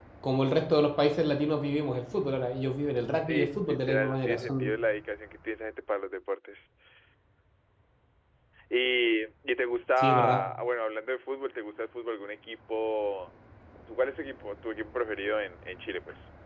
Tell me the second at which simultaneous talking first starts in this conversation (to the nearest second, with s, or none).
3 s